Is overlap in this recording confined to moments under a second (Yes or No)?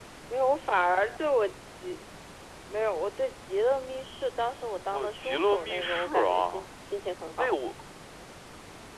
No